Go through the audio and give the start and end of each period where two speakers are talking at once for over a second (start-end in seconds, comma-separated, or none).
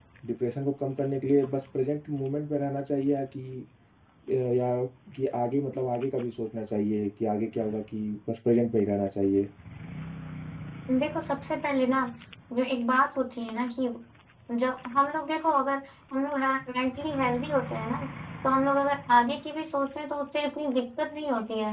none